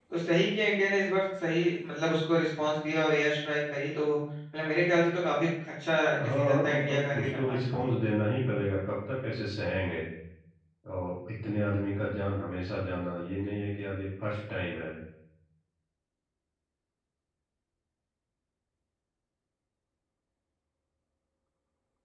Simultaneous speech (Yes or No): Yes